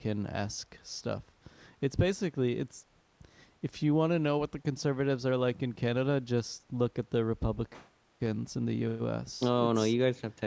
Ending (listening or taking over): taking over